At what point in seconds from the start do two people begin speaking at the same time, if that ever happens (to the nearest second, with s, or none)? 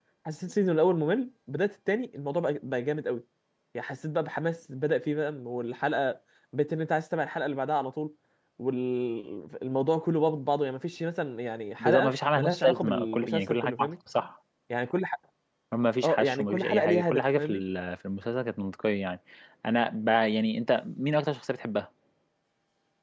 12 s